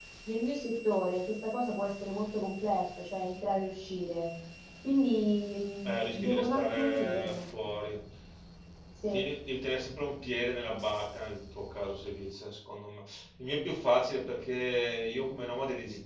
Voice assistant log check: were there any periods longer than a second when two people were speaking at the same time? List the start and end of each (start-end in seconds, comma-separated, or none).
5.8-7.4